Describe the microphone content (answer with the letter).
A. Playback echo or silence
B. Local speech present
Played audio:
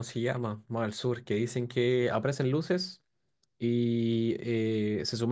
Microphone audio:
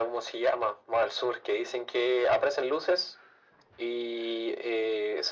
A